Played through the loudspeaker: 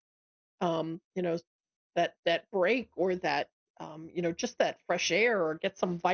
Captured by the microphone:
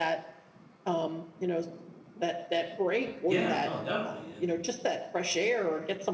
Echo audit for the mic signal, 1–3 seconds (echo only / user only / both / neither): echo only